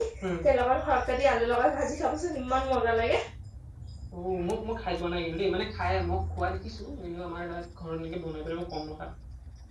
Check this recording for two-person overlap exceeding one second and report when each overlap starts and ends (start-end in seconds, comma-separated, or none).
none